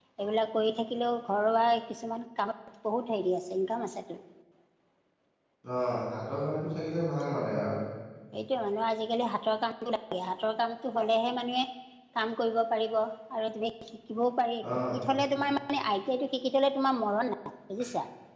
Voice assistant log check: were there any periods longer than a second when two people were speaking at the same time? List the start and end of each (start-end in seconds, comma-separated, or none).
none